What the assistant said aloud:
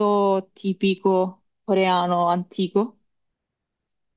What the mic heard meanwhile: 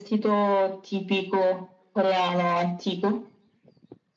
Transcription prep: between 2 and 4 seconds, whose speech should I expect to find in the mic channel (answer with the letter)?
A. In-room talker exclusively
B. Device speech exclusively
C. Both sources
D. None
B